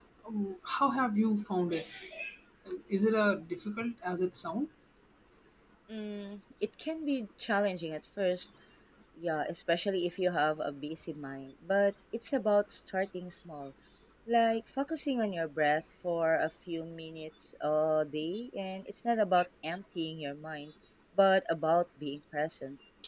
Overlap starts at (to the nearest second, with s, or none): none